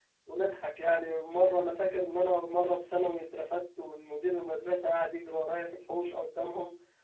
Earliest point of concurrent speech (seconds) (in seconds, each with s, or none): none